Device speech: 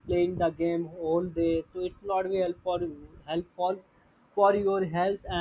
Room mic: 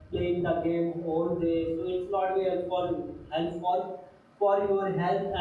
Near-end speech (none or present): none